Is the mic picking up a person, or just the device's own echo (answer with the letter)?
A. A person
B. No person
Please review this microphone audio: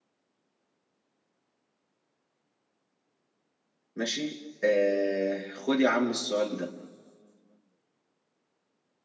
A